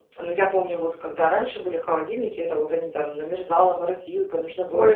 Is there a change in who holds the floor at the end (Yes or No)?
Yes